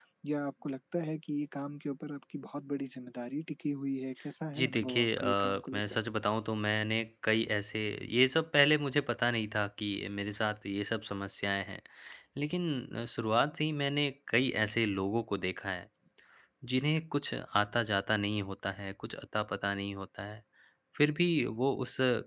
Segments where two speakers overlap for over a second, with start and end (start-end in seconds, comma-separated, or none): 4.5-5.8